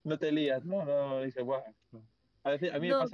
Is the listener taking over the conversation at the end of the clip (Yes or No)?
No